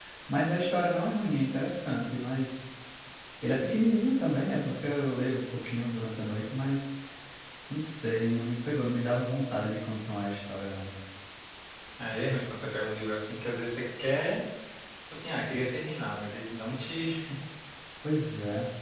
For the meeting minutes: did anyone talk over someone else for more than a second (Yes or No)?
No